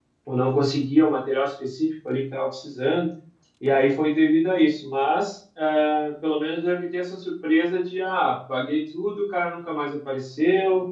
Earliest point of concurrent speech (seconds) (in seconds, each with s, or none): none